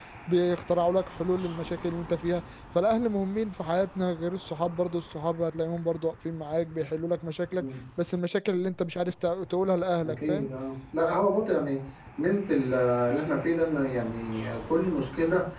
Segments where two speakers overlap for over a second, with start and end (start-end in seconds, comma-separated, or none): none